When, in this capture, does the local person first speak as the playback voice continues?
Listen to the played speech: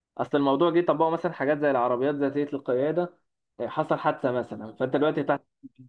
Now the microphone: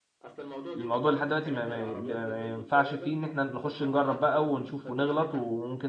1 s

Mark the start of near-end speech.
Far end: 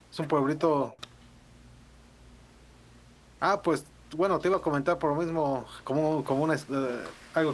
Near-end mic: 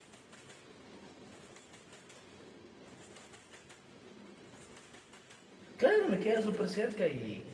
6 s

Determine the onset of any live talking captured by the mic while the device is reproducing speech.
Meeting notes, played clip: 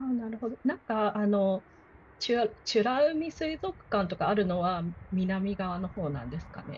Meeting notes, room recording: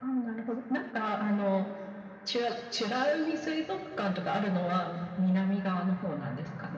none

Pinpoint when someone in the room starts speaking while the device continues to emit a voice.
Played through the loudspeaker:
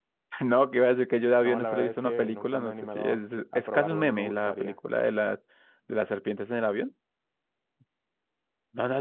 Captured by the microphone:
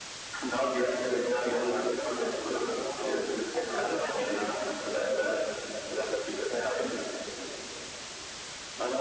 none

